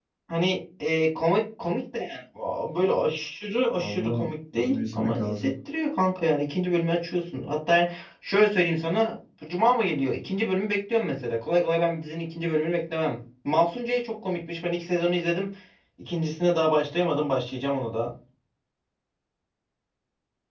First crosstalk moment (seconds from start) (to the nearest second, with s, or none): 4 s